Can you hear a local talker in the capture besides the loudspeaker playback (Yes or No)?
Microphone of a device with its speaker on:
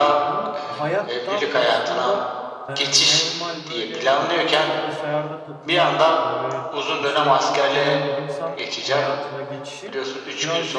Yes